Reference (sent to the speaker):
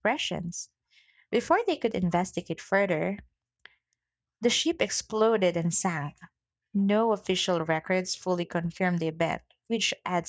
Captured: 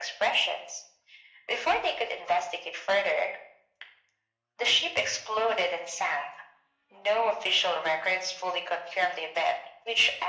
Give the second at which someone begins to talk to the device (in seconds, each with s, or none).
none